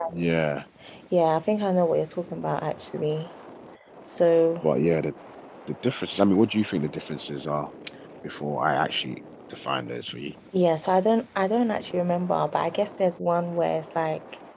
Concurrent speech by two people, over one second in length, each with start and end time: none

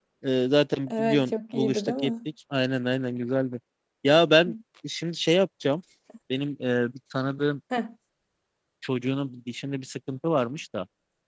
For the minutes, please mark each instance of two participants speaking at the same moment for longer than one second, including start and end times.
0.9-2.1

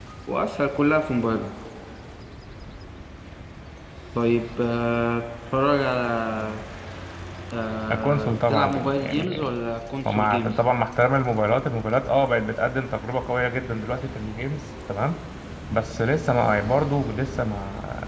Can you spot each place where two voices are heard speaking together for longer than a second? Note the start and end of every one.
7.9-9.5

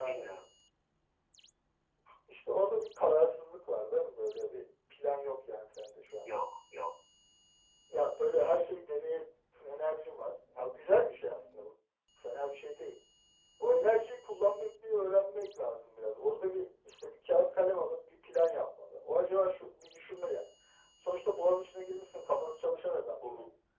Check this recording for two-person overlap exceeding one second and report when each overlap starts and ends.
none

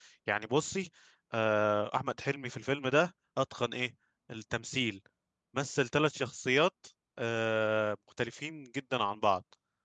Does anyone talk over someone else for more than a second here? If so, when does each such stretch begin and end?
none

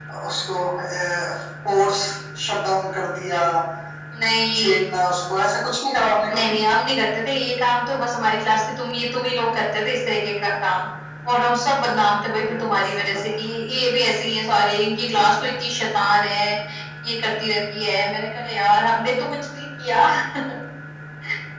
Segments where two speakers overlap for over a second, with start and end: none

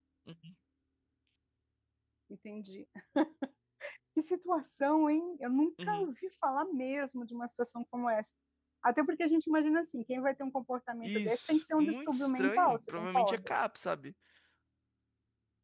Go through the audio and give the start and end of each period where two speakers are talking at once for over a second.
11.0-13.5

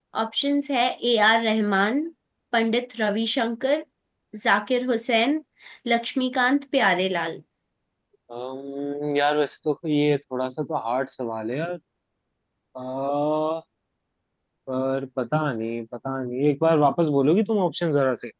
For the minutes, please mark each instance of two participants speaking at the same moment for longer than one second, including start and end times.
none

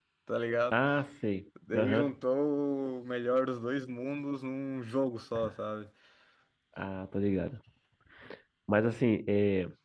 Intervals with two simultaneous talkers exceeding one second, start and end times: none

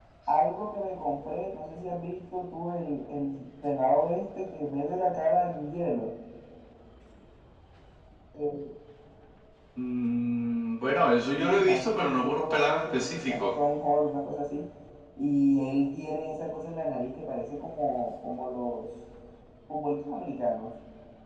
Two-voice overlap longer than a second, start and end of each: 11.3-13.6

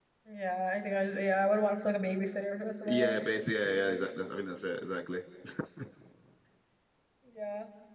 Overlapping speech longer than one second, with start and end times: 2.9-4.1

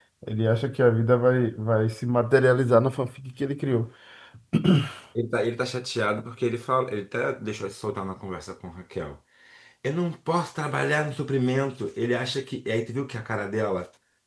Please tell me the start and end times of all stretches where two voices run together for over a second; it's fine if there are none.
none

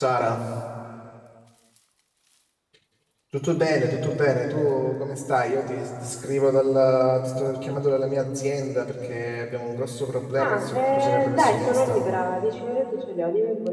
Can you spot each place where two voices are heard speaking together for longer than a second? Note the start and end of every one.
10.4-12.0

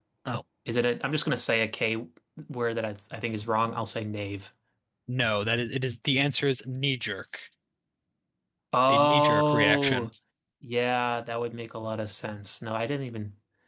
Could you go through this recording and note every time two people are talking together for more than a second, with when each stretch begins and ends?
8.9-10.1

